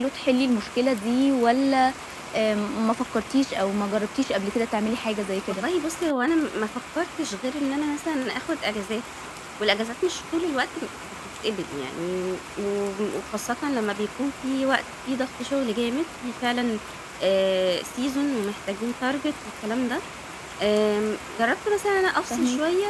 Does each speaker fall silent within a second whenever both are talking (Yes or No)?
Yes